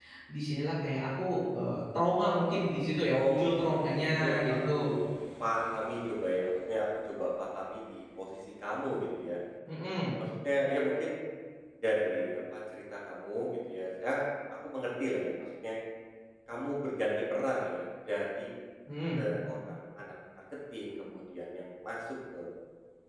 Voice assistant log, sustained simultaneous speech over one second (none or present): present